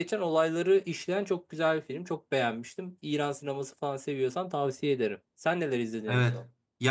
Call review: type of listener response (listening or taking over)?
taking over